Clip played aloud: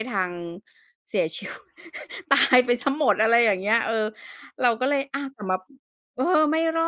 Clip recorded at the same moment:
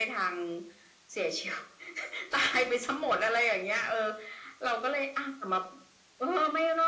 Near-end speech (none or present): none